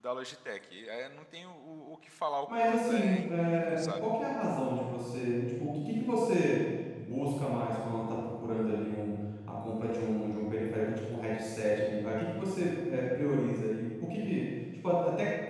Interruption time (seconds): 2.5 s

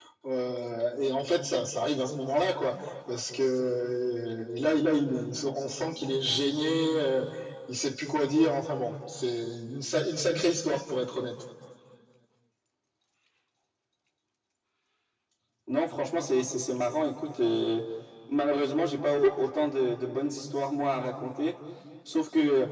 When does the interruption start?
none

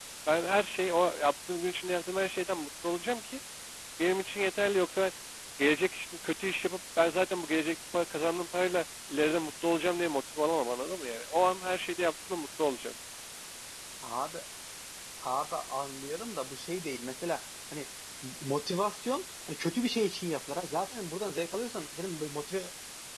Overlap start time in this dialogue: none

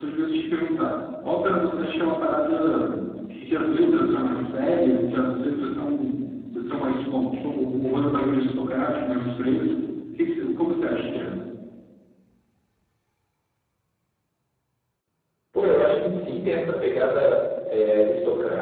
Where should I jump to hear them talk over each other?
none

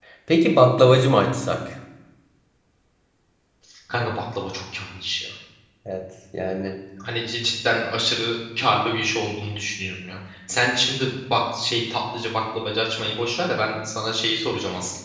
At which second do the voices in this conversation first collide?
none

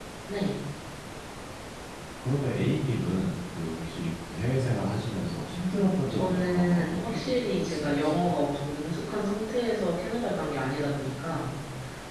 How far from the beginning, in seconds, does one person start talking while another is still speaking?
6.1 s

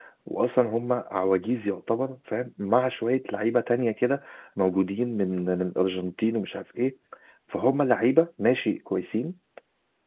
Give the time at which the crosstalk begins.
none

